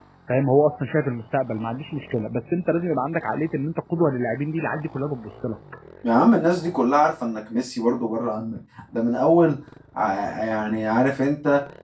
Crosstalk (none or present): none